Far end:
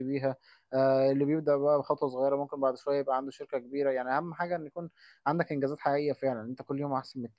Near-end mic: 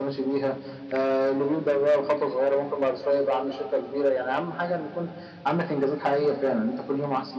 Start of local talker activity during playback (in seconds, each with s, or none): none